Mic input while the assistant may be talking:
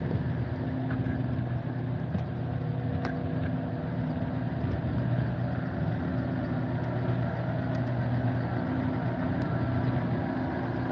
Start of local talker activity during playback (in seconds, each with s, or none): none